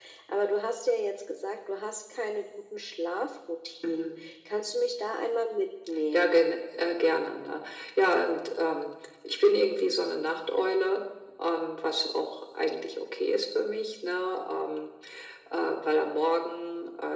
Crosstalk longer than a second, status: none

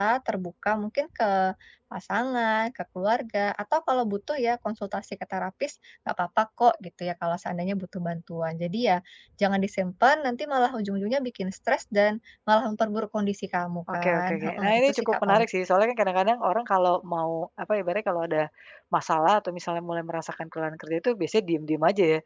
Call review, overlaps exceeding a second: present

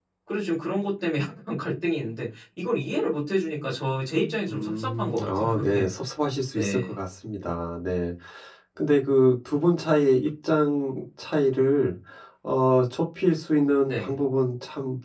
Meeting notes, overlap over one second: present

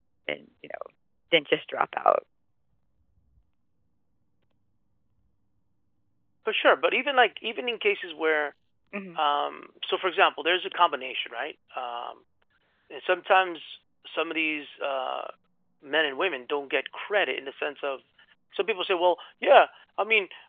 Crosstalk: none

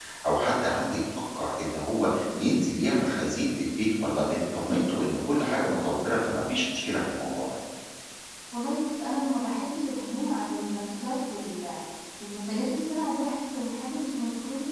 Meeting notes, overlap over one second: none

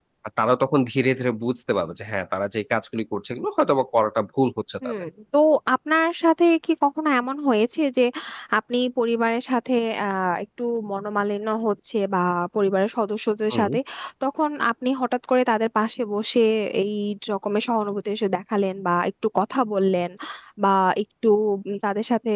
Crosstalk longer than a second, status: none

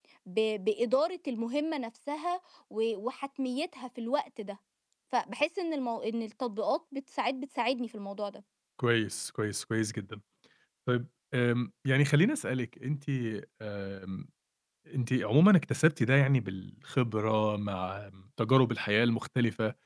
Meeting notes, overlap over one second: none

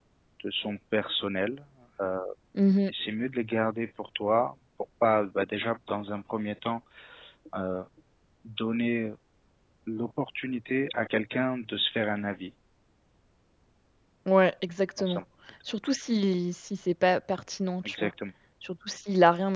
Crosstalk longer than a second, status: none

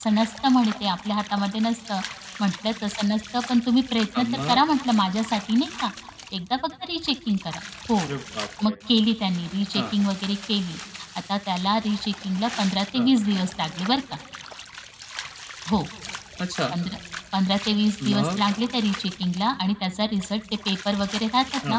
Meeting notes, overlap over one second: none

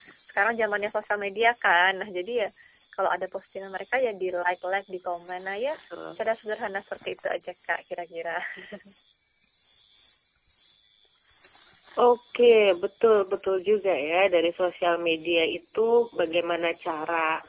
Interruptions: none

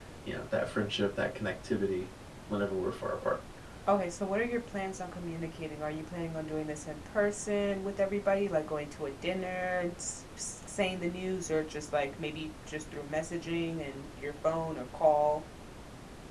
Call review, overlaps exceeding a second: none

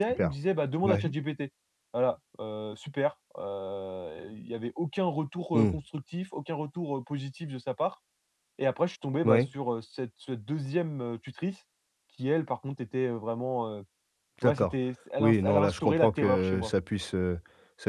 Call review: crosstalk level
present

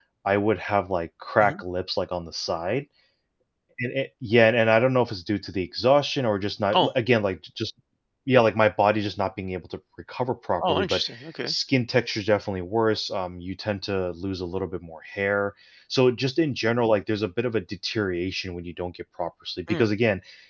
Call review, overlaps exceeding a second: none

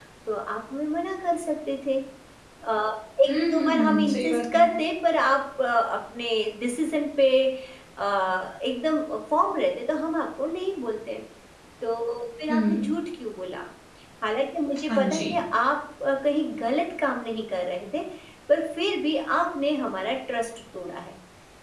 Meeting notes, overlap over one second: present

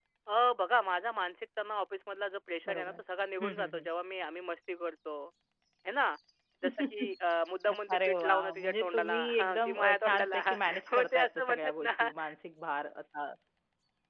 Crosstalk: present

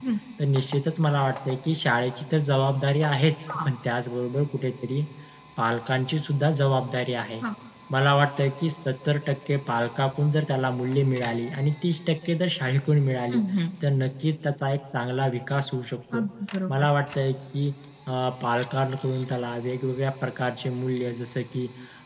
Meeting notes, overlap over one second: none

